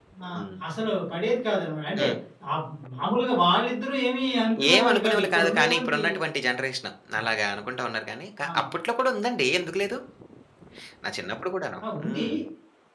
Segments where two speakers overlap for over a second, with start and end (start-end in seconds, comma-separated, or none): 4.7-6.0